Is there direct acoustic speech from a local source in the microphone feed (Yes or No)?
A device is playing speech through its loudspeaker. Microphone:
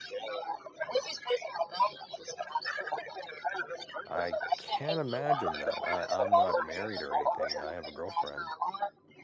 Yes